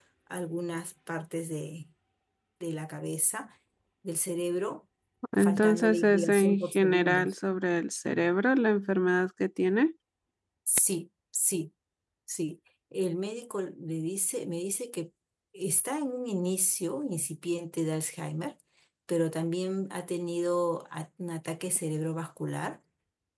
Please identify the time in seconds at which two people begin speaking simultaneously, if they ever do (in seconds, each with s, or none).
5.4 s